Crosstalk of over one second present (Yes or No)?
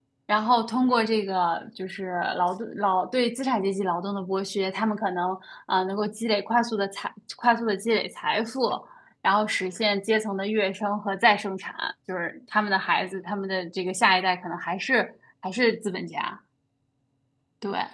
No